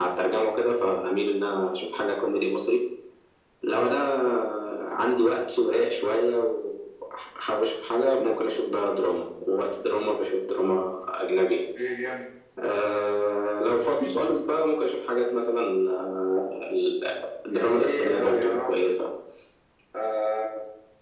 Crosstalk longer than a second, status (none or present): present